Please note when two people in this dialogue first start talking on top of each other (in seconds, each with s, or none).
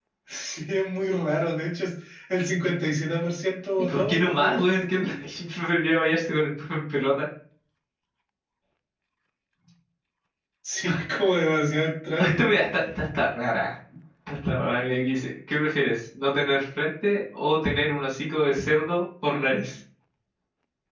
3.8 s